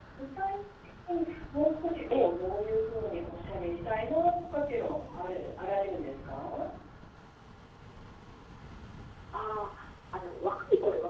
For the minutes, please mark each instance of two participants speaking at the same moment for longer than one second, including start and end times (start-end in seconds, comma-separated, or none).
none